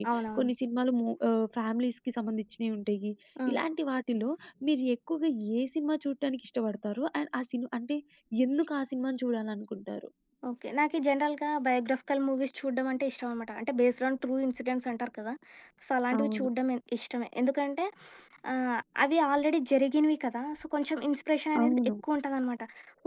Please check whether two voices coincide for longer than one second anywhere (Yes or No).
No